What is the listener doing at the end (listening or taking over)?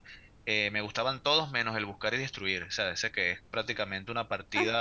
taking over